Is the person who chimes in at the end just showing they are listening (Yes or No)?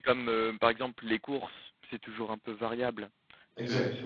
Yes